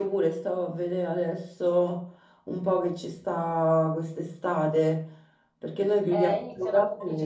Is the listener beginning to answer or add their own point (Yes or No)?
Yes